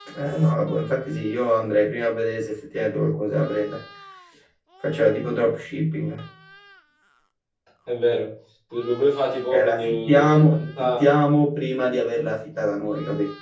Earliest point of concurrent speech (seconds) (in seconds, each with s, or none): 9.5 s